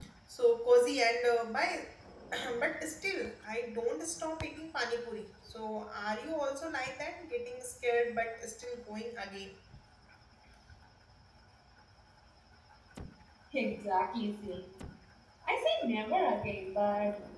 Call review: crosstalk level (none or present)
none